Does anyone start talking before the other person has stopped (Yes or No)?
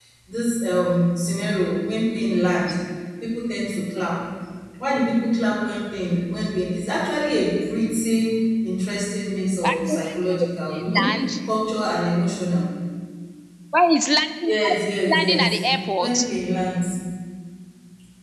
Yes